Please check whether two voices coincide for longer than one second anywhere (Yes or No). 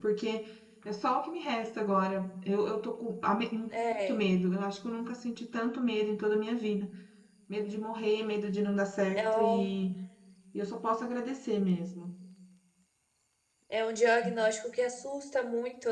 No